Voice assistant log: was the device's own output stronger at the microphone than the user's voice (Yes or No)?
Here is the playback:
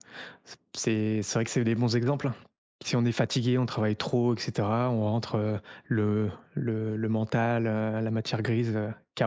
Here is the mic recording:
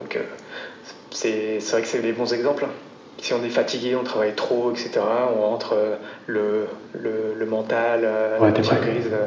No